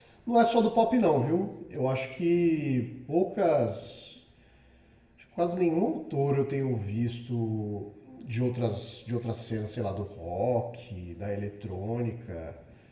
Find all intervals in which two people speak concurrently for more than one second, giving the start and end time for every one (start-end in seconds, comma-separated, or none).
none